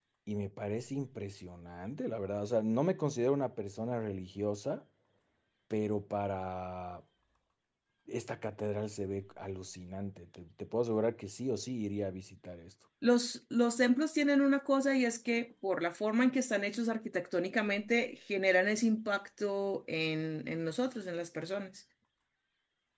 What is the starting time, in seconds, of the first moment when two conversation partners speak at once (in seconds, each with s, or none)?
none